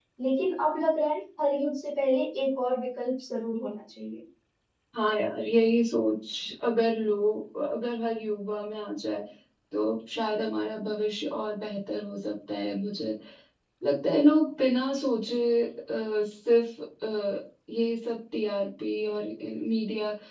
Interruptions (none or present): none